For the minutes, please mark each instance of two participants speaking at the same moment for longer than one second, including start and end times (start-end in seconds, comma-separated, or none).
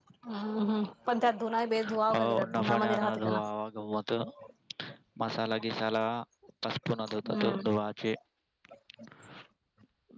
1.8-3.4